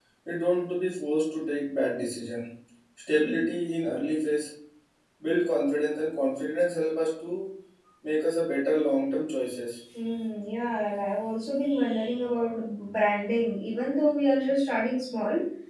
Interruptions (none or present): none